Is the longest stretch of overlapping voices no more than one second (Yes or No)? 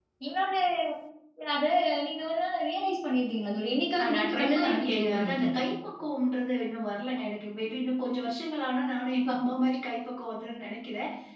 No